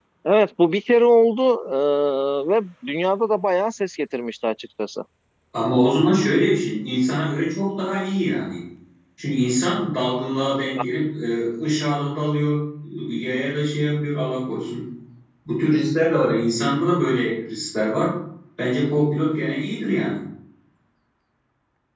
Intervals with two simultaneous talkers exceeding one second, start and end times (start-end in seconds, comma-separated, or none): none